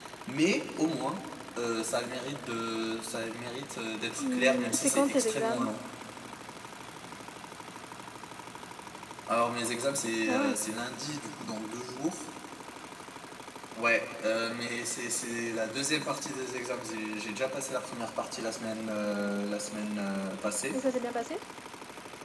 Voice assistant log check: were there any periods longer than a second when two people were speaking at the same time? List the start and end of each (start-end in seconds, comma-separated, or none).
4.2-5.7